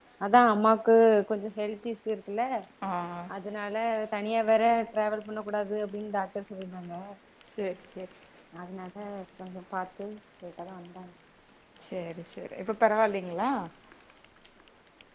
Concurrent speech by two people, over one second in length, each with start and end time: none

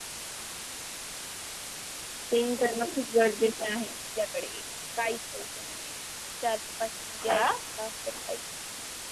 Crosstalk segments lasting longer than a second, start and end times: none

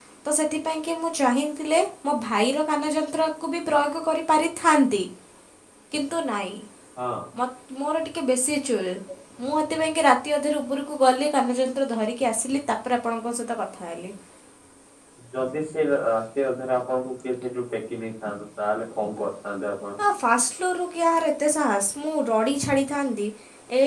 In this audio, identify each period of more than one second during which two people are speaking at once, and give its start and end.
none

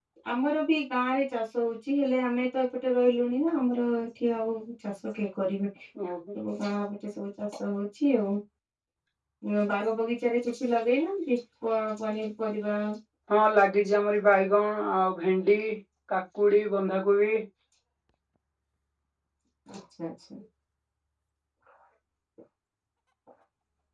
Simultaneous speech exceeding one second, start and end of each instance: none

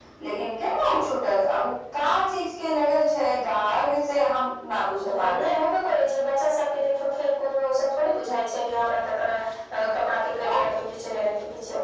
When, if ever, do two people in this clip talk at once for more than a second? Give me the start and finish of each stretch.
none

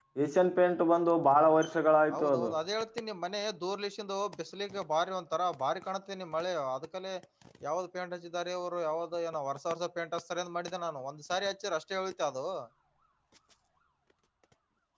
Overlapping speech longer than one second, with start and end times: none

